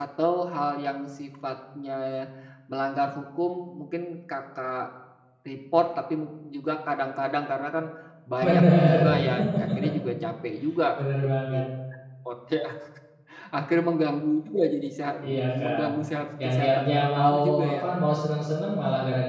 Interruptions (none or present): present